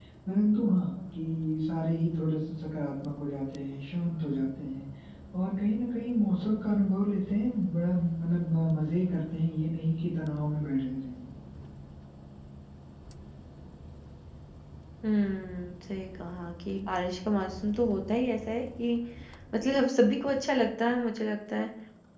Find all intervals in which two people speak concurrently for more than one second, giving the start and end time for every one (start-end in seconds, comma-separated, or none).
none